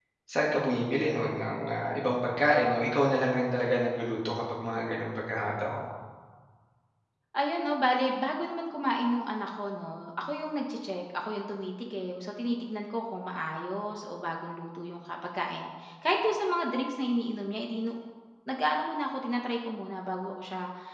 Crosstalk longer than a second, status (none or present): none